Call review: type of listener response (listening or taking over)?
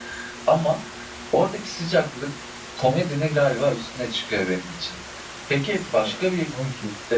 listening